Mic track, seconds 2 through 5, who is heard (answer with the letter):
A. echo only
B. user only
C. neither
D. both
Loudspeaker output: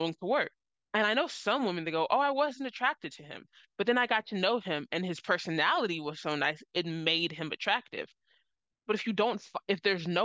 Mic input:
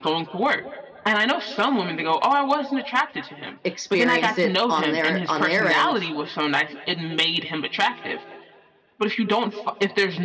D